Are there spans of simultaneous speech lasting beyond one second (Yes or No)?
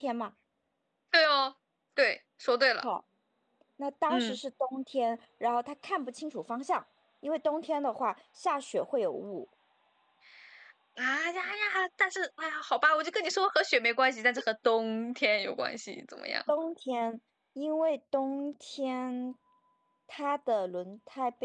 No